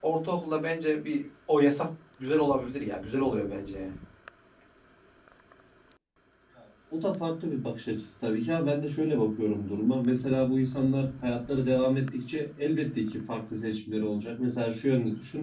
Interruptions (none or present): none